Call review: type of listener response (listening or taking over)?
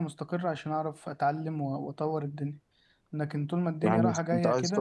taking over